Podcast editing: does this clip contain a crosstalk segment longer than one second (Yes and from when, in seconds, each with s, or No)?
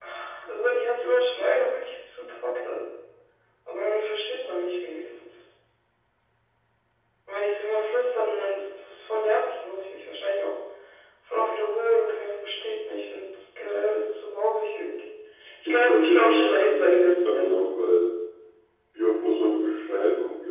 Yes, from 15.6 s